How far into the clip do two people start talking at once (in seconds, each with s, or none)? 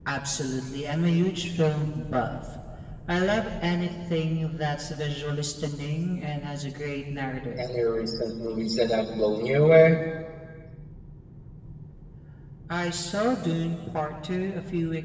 none